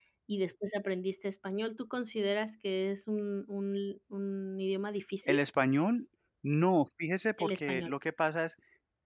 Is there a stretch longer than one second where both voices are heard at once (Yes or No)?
No